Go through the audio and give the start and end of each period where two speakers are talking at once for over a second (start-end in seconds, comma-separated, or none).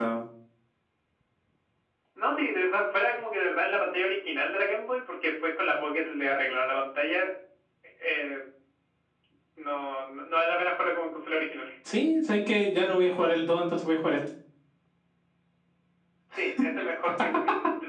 none